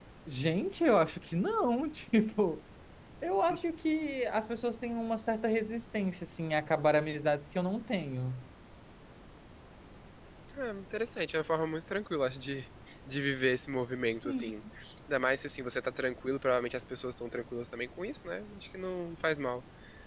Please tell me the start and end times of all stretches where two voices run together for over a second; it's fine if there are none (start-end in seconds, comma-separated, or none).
none